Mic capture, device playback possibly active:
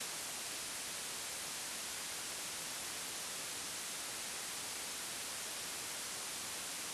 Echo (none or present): none